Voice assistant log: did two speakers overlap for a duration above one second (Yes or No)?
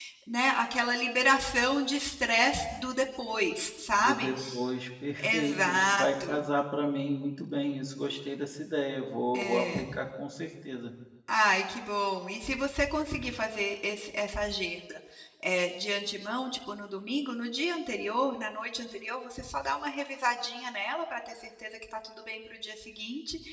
Yes